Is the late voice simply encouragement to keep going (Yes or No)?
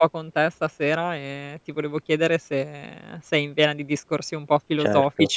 No